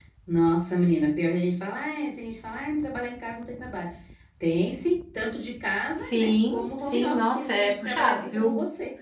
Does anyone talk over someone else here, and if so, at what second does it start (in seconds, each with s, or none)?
6.0 s